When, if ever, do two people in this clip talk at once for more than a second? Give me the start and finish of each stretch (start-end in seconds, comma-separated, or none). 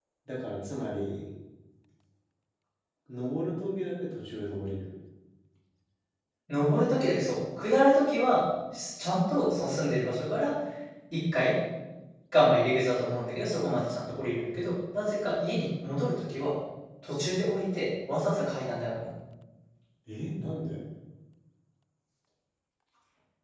none